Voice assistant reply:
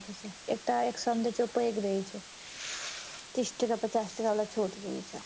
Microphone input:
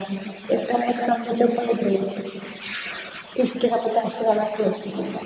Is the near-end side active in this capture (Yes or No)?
No